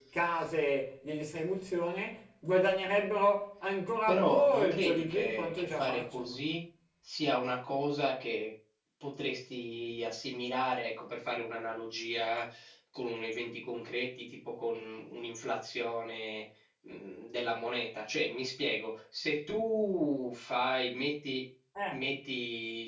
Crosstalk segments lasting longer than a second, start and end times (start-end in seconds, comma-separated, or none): 4.1-6.4